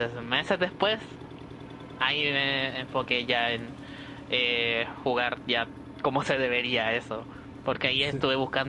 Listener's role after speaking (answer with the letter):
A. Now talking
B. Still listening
B